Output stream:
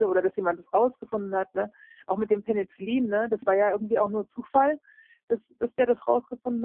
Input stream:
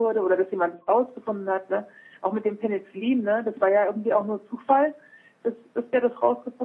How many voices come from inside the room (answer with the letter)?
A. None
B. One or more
A